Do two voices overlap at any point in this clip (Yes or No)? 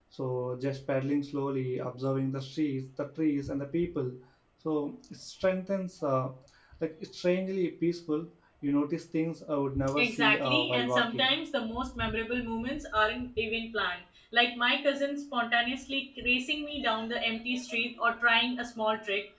Yes